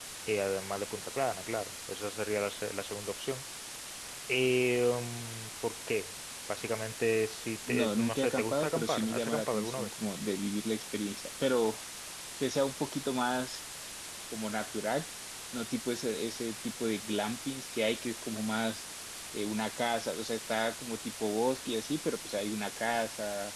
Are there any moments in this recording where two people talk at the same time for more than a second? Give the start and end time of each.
7.7-9.9

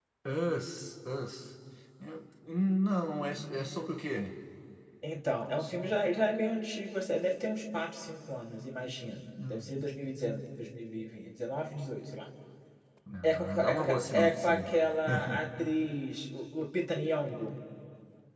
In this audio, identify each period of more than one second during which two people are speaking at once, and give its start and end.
13.2-14.7

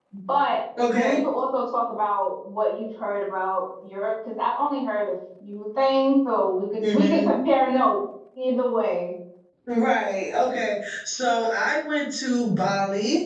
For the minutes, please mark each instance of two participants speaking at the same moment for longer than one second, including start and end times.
none

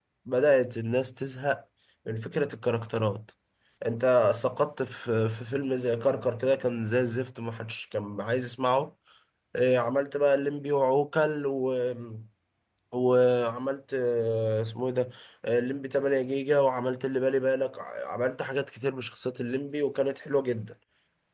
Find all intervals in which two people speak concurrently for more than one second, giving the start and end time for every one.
none

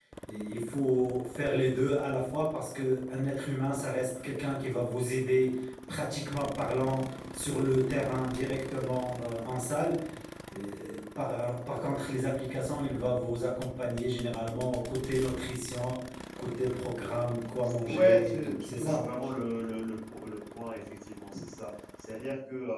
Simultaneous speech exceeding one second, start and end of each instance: 17.9-19.1

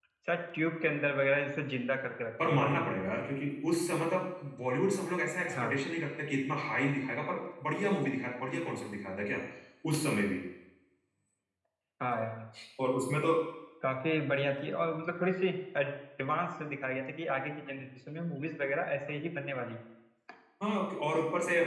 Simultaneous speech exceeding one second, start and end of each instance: none

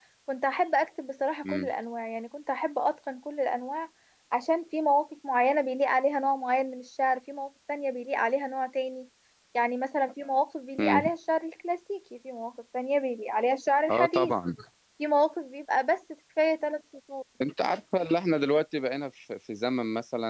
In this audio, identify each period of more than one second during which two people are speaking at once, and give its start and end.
none

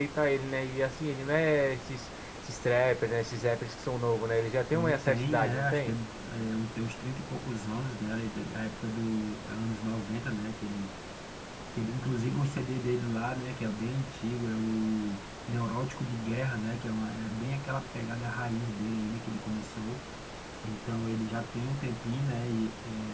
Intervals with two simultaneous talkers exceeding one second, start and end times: 4.7-6.0

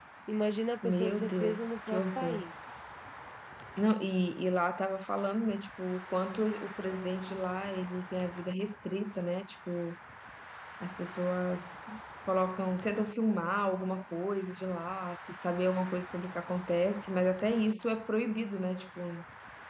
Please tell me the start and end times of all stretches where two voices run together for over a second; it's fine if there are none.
0.8-2.5

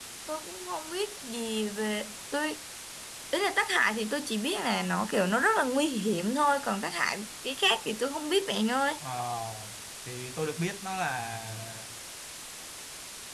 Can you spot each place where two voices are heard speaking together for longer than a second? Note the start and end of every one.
none

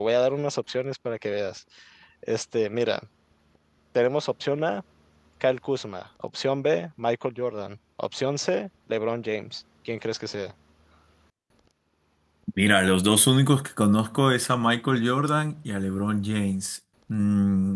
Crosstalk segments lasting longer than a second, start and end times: none

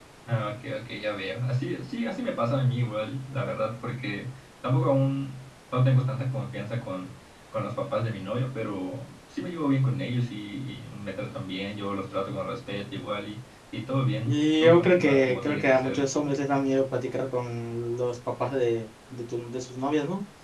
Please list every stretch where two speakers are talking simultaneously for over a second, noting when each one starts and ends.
14.2-16.0

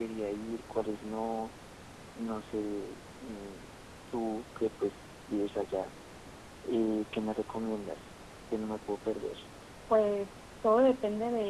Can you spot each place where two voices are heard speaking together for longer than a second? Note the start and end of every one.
none

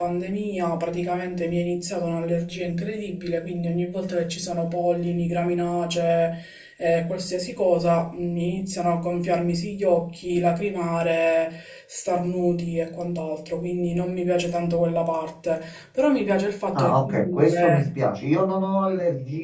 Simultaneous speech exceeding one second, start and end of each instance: 16.8-18.0

